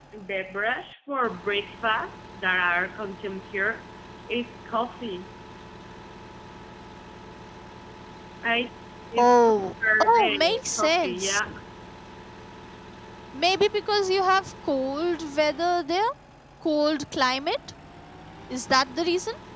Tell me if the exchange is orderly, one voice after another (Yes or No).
No